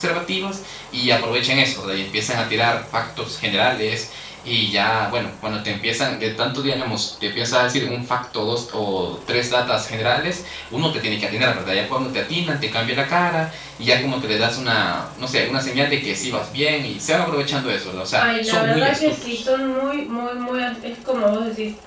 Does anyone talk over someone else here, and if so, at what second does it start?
18.2 s

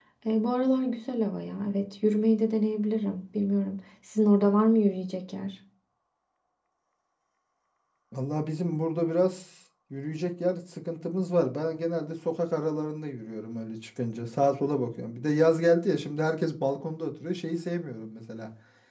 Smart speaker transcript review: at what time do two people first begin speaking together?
none

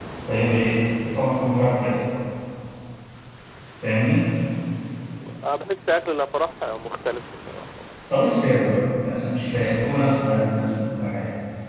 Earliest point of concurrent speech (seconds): none

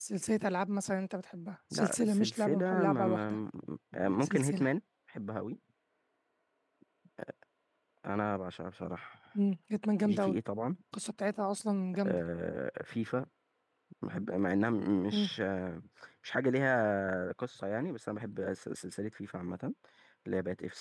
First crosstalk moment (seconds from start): 1.7 s

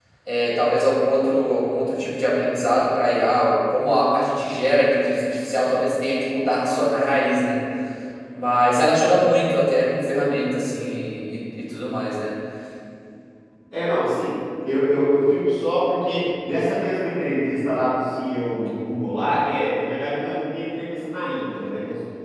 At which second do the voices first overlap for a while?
none

